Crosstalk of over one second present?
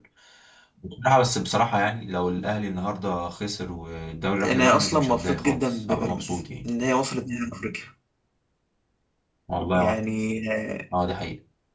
Yes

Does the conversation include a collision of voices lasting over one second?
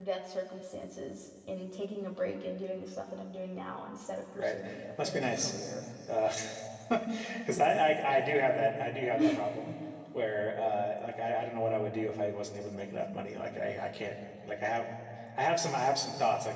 No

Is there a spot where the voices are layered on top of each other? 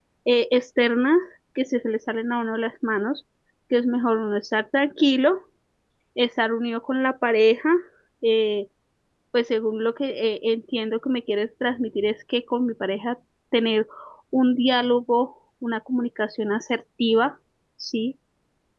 No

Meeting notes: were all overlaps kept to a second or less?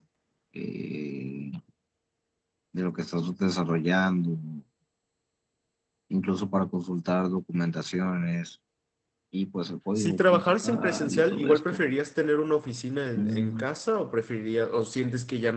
No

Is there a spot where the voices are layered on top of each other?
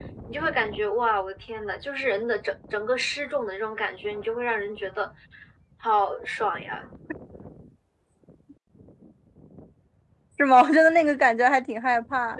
No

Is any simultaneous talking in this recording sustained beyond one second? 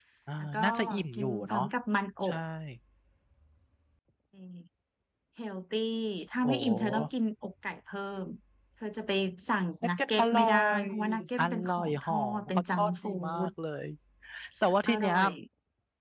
Yes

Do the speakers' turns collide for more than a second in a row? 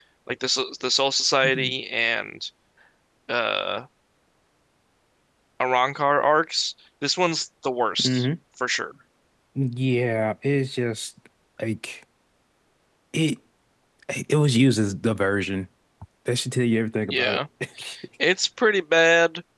No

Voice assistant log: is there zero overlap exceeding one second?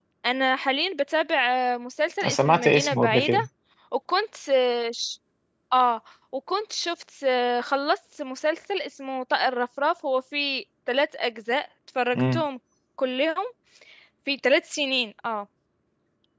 No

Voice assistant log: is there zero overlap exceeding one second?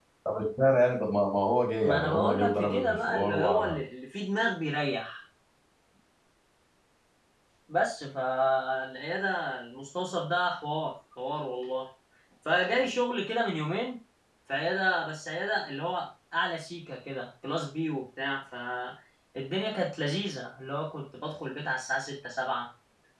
No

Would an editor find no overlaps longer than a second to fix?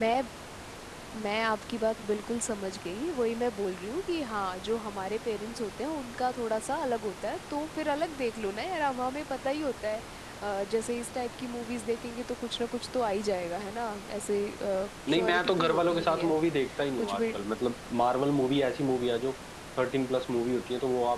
No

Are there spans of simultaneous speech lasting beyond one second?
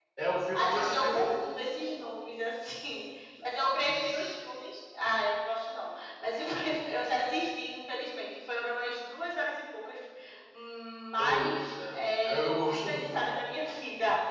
Yes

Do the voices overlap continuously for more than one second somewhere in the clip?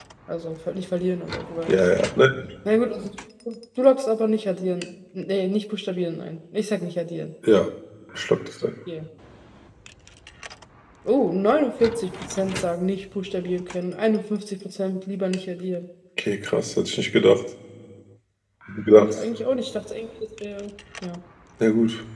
No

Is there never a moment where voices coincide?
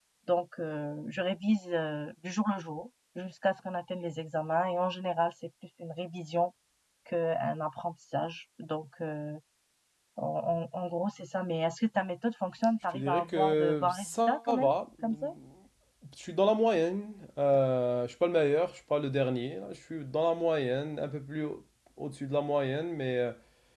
No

